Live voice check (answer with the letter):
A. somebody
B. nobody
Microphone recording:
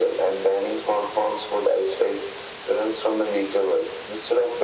B